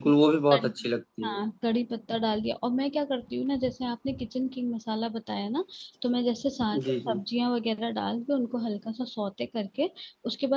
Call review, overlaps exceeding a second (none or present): none